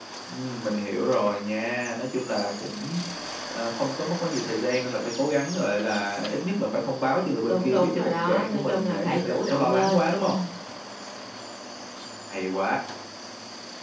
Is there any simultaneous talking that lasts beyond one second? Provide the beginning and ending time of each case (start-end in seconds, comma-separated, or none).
7.5-10.3